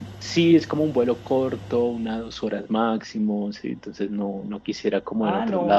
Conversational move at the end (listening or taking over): taking over